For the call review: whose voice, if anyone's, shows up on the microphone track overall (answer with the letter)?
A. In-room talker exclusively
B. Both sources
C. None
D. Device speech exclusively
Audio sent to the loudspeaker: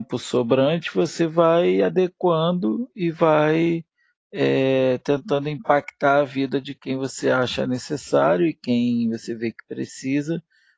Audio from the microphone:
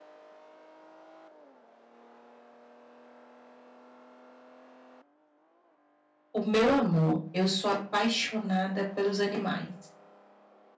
A